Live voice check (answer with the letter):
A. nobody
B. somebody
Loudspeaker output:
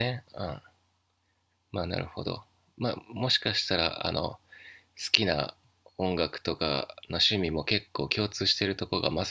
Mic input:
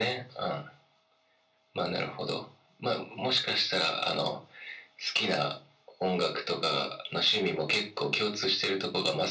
A